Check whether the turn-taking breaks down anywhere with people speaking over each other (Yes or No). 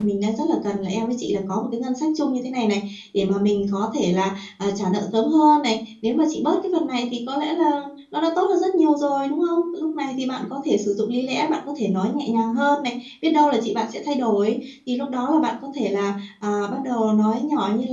No